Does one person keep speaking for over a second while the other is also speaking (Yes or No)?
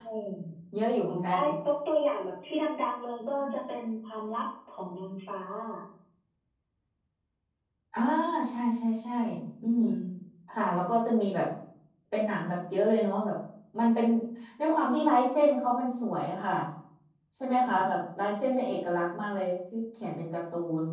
No